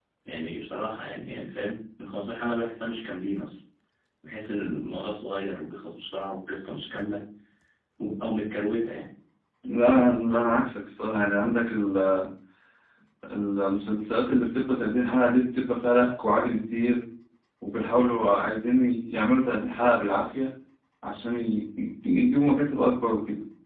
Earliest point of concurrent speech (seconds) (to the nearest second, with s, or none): none